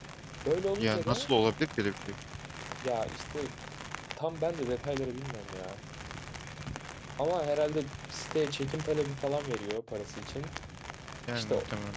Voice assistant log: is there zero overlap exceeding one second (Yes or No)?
Yes